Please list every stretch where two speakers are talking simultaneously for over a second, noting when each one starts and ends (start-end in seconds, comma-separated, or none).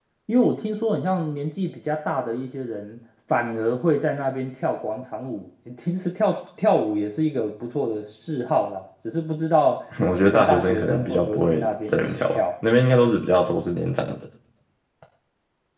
10.2-12.4